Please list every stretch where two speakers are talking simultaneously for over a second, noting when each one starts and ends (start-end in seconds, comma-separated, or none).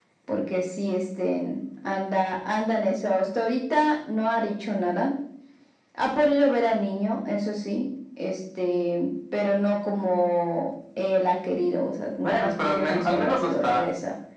12.2-13.9